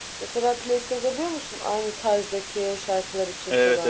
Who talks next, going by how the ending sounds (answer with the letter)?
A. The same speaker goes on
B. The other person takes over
B